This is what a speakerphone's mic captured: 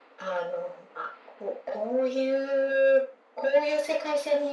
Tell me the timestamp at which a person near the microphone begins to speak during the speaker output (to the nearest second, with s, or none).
none